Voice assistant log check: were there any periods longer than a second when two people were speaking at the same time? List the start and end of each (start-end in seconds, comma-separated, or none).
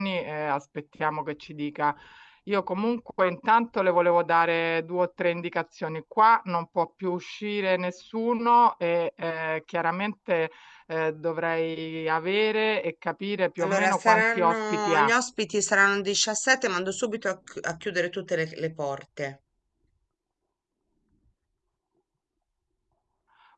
13.6-15.1